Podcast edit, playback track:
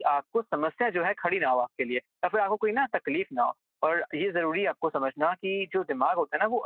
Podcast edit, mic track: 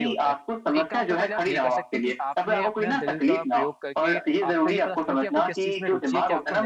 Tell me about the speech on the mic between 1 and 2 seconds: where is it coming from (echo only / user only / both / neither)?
both